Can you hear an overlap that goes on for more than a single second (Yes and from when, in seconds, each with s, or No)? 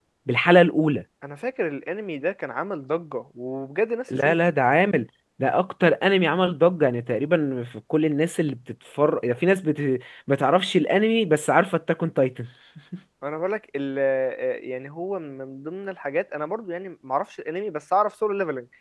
No